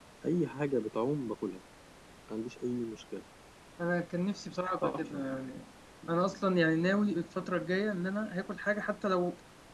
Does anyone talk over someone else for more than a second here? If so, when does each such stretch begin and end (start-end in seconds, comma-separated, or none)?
none